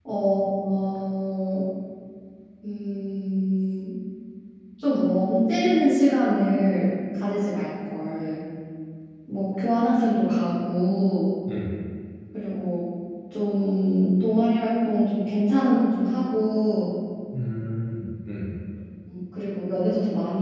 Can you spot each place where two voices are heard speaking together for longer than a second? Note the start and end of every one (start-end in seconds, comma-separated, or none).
none